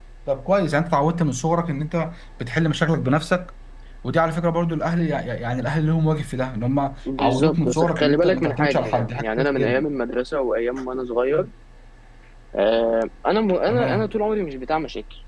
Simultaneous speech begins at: 7.2 s

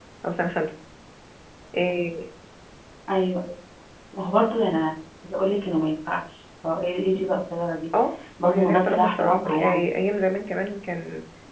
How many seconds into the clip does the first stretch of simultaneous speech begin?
8.4 s

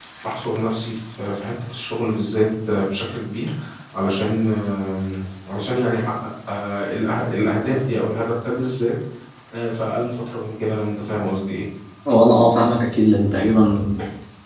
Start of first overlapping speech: none

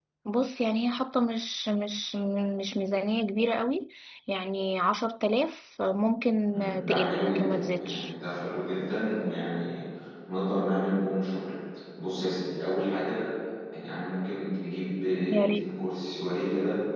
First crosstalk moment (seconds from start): 6.5 s

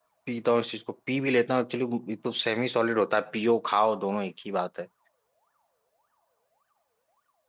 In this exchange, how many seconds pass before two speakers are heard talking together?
none

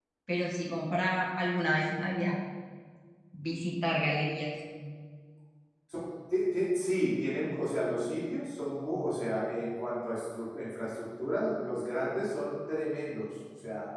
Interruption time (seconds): none

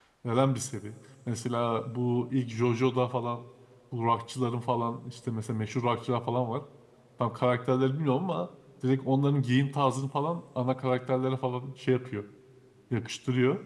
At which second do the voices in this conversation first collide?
none

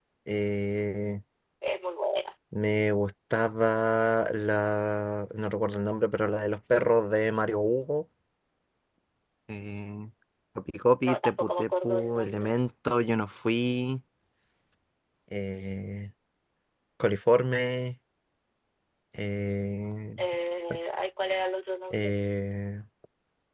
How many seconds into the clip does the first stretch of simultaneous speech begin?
11.0 s

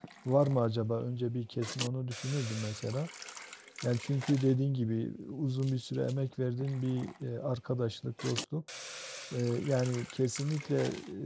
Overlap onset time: none

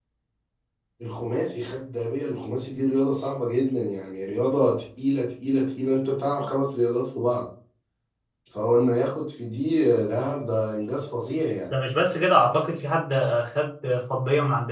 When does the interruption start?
none

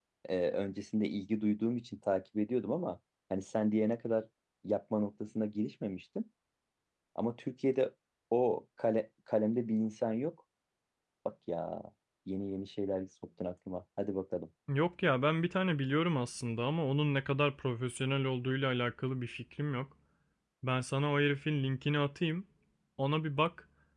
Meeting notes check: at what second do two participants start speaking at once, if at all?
none

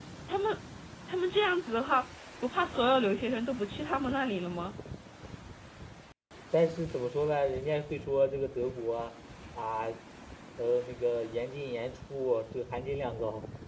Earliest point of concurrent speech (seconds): none

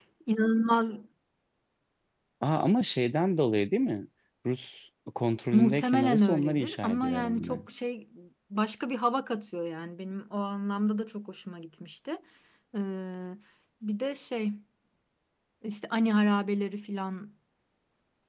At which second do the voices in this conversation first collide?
5.5 s

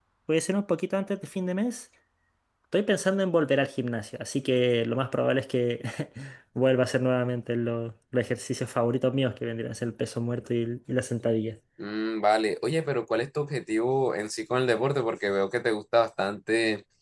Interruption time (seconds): none

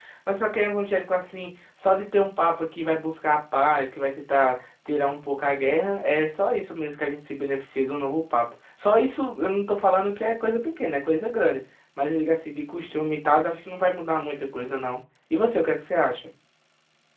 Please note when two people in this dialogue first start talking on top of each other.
none

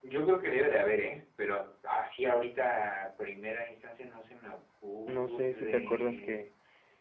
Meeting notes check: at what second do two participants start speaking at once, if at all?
5.1 s

